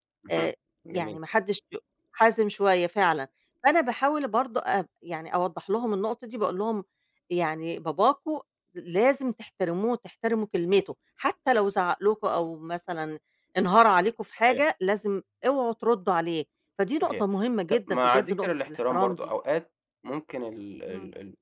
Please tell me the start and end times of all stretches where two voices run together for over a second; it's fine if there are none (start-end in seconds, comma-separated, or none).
17.7-19.2